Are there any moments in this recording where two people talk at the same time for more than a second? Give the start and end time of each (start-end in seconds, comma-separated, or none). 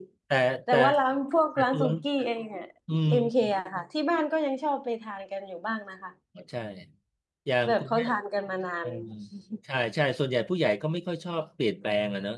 none